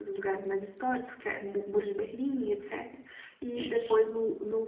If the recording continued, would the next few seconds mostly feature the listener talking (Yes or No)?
No